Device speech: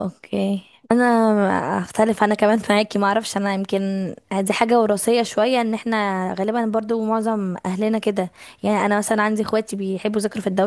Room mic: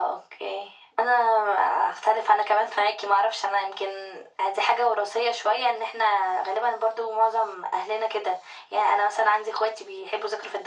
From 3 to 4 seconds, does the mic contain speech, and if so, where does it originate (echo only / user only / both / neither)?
echo only